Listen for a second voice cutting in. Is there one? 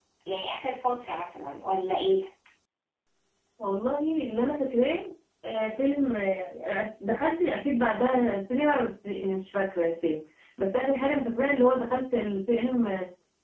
No

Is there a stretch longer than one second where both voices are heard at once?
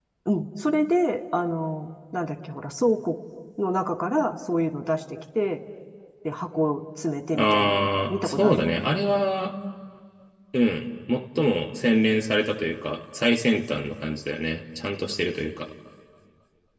Yes, from 7.3 s

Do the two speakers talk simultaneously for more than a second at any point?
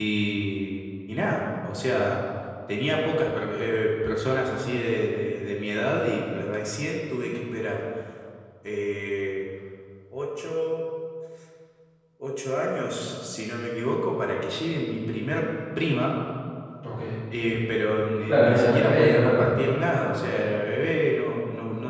Yes, from 18.3 s

